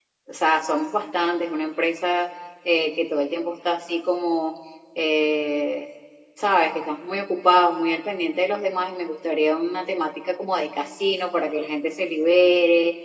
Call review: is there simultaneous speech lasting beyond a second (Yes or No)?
No